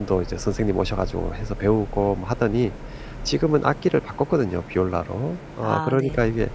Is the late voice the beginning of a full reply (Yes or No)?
No